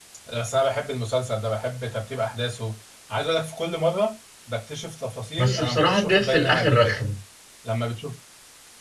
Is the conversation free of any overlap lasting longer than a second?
No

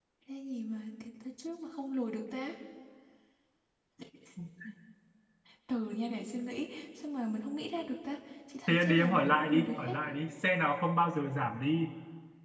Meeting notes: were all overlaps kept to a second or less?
No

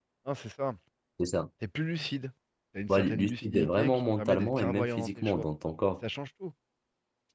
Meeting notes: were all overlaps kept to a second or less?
No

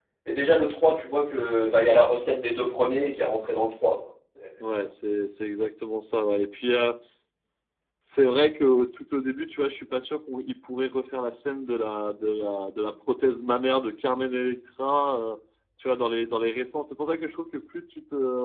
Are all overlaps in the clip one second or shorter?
Yes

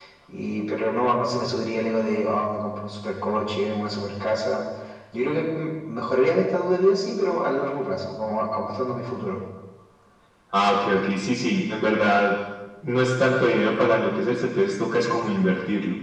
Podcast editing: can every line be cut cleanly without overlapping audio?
Yes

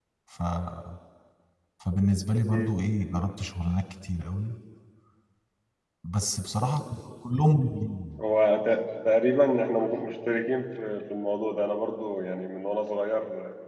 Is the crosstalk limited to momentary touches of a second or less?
Yes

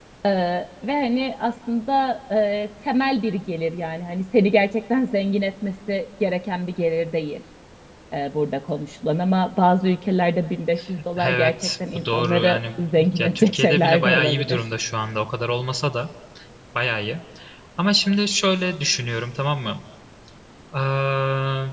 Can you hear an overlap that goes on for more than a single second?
Yes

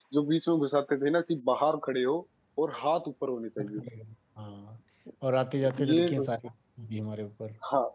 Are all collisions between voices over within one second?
Yes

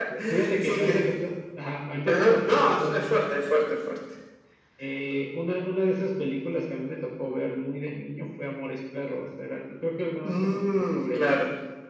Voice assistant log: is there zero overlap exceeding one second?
No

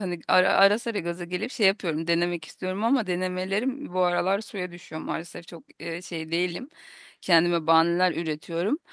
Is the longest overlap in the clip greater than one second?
No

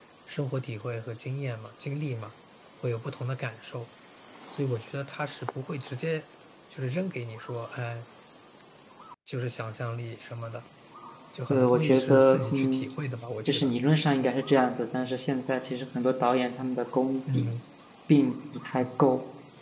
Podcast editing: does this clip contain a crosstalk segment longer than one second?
Yes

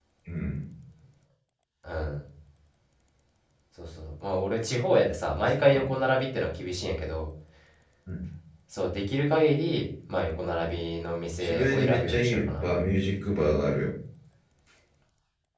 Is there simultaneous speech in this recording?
Yes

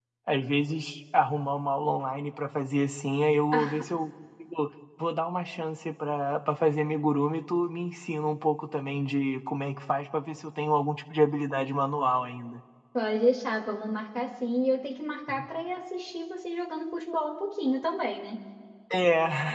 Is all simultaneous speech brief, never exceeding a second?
Yes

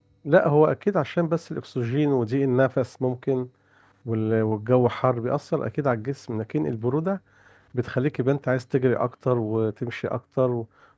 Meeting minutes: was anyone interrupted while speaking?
No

